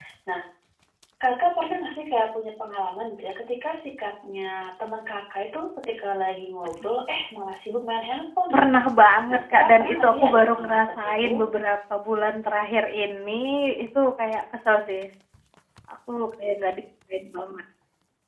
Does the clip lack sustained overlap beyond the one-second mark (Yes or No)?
No